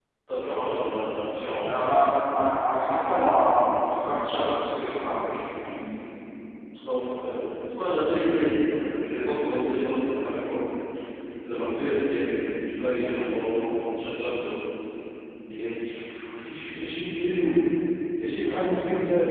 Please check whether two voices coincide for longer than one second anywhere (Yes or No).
No